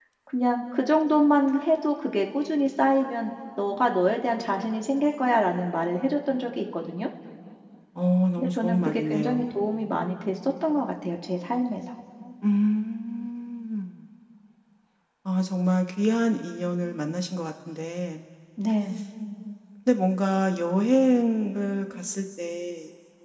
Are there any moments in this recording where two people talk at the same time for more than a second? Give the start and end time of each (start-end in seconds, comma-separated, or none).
8.4-9.6